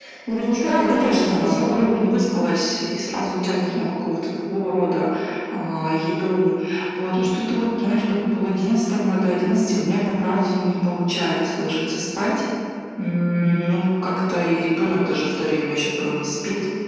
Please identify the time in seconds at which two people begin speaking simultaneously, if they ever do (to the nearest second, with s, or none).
1 s